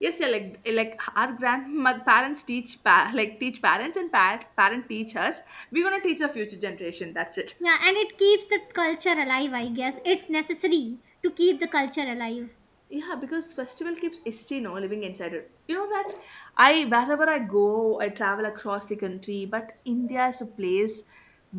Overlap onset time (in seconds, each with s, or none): none